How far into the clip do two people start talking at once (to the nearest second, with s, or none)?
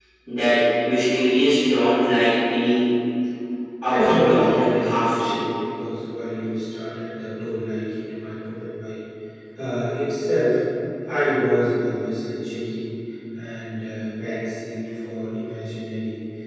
4 s